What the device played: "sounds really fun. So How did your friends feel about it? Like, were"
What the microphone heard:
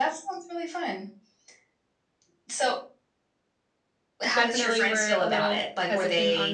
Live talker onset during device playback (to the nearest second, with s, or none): 4 s